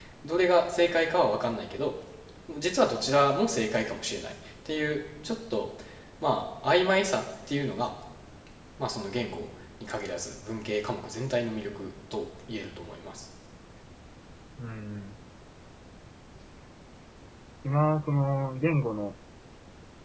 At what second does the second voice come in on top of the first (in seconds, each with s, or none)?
none